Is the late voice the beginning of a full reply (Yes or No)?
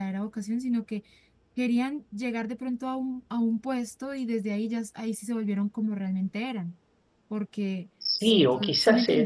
Yes